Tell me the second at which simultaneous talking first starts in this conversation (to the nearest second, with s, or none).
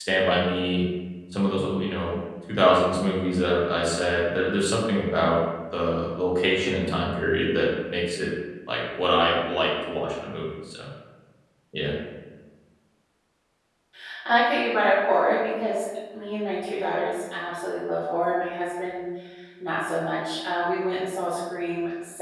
none